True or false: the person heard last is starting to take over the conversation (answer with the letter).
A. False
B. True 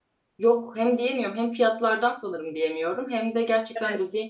A